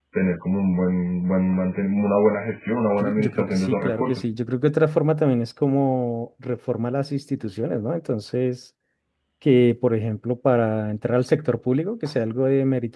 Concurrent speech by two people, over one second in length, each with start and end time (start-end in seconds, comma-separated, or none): 3.0-4.3